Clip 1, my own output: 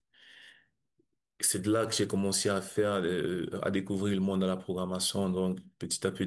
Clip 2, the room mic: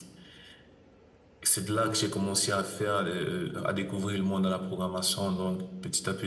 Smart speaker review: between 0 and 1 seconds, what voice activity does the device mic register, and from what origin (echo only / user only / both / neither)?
neither